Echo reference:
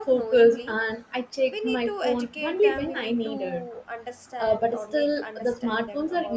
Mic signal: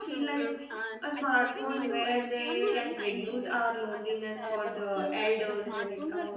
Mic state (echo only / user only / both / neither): both